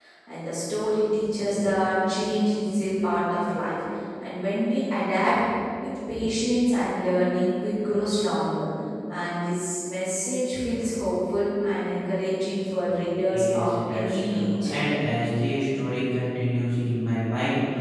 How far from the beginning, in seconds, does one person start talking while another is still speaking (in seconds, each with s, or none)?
13.3 s